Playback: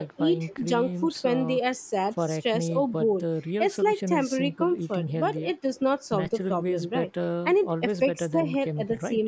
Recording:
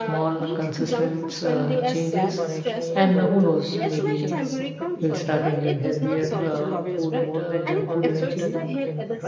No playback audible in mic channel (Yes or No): No